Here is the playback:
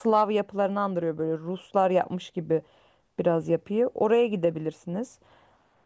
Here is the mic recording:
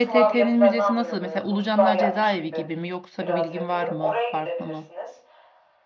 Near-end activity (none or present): present